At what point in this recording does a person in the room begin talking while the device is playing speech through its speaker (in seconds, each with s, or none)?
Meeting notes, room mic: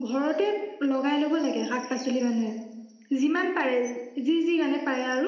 none